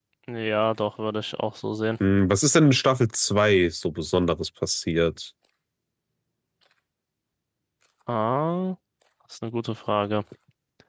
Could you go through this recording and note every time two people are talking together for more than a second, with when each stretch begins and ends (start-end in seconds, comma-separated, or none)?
none